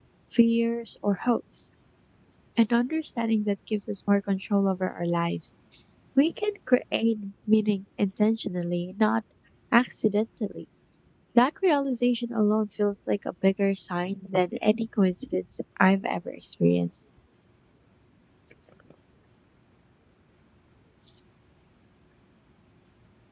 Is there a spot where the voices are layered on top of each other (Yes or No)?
No